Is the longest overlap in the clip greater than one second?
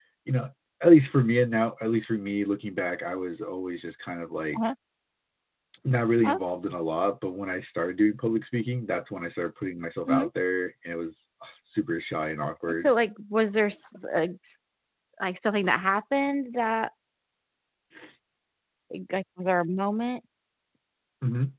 No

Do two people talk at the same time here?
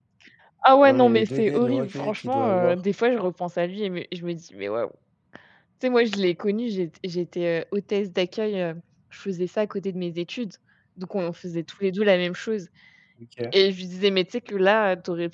Yes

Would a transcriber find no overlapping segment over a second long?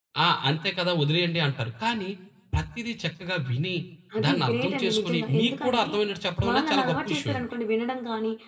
No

